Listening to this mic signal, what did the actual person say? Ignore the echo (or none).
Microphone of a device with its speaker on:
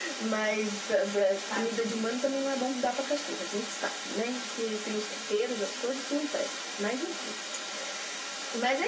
tadinho.